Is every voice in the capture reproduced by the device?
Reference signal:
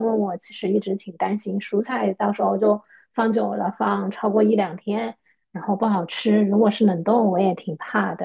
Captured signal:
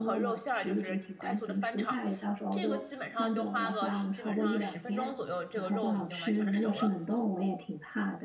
No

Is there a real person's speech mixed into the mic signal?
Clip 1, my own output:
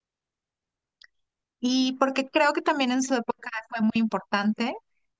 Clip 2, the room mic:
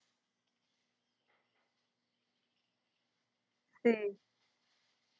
Yes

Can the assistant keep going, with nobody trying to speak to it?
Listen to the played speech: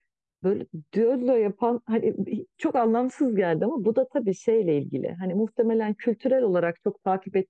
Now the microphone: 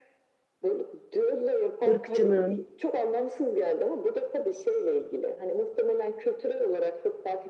No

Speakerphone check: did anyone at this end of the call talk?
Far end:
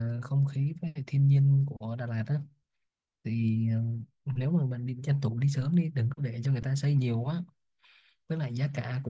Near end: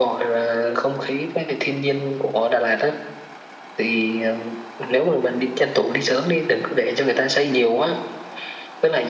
No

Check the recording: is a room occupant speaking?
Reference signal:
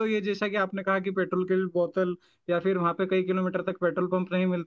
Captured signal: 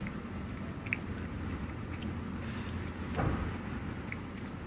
No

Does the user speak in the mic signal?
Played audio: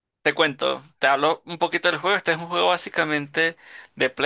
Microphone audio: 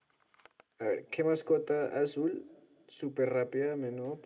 Yes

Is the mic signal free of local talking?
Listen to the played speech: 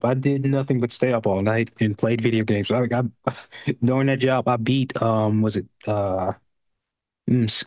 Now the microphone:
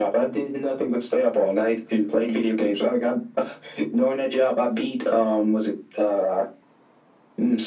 Yes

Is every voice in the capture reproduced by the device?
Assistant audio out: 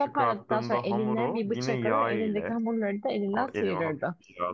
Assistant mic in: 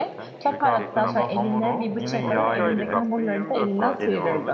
No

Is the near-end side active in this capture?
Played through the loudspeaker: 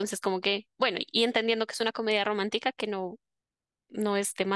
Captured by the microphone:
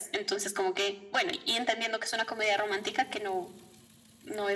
No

